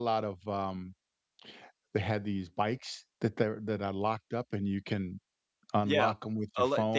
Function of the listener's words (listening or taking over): taking over